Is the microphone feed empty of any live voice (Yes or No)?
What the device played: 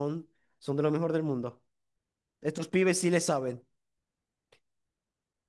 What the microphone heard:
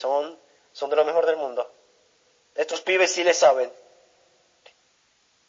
Yes